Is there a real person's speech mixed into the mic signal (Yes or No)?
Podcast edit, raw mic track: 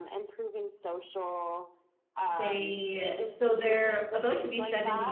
Yes